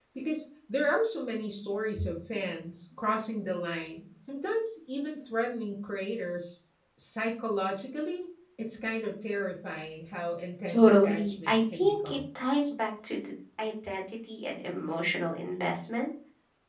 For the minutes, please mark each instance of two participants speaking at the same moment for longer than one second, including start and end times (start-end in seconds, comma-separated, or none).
10.7-12.2